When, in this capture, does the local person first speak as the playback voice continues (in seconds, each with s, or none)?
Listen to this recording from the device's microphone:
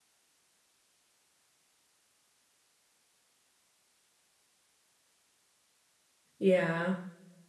6.4 s